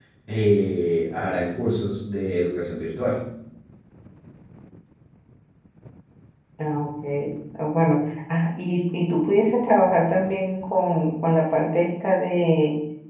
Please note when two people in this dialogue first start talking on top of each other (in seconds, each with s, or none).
none